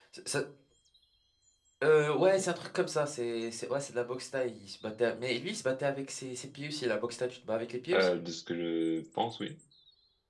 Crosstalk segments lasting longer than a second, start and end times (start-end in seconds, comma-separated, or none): none